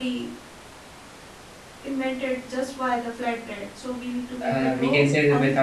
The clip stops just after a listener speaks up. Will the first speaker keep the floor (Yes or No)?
No